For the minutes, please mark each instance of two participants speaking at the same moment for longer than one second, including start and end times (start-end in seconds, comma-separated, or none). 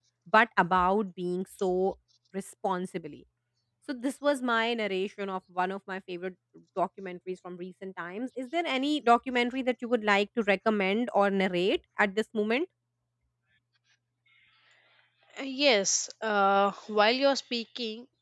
none